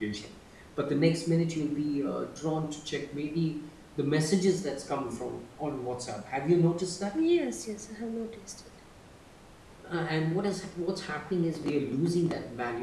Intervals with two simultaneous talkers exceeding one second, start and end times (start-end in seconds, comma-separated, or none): none